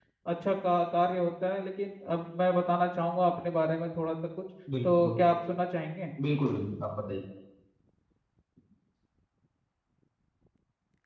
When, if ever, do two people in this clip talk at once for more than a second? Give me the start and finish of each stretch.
none

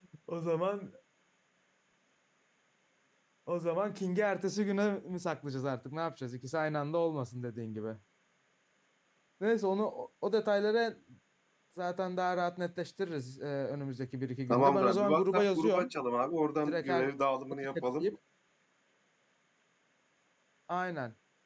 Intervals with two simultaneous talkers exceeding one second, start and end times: 14.5-15.9

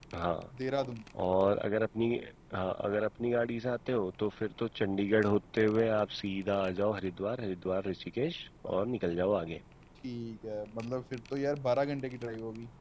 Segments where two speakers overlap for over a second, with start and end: none

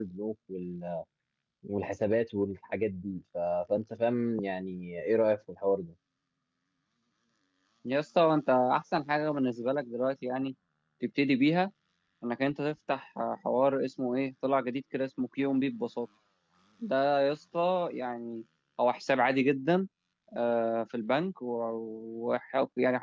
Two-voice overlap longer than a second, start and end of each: none

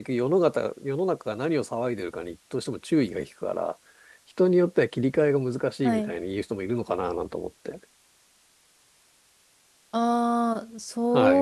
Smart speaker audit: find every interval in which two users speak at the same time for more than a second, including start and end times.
none

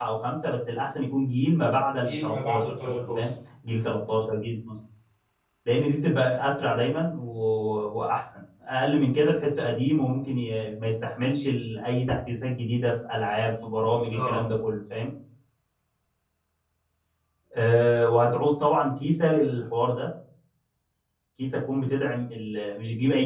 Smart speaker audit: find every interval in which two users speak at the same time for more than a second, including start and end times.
2.0-3.3

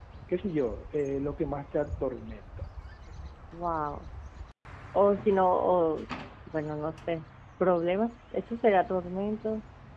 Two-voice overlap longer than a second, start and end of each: none

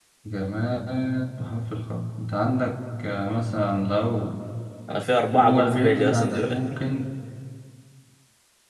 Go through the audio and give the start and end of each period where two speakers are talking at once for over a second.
5.4-6.6

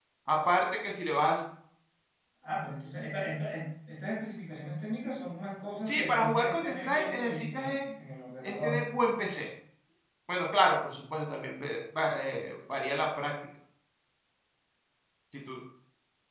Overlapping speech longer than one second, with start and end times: 5.8-7.8

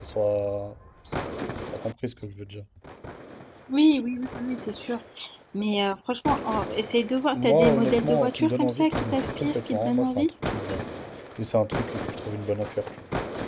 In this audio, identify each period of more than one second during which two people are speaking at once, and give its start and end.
7.3-10.3

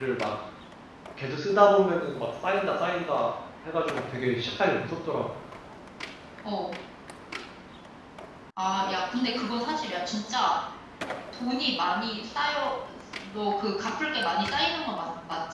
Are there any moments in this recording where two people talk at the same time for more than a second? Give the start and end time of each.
none

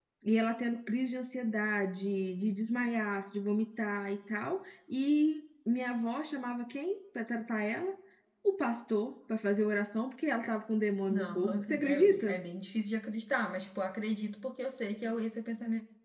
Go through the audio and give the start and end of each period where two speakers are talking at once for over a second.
11.1-12.4

